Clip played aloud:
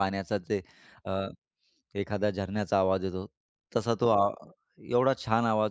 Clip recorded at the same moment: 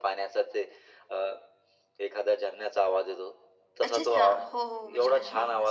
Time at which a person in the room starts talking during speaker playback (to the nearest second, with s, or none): 4 s